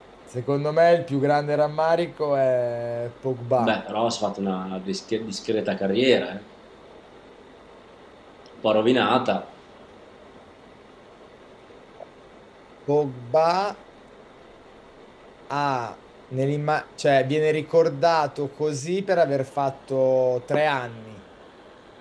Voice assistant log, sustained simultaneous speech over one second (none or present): none